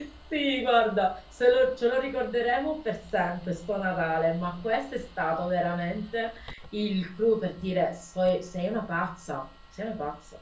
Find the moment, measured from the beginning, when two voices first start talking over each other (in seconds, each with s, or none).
none